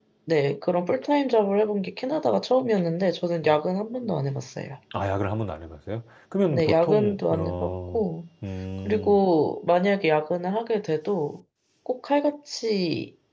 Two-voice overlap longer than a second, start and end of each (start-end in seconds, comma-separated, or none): 6.4-8.0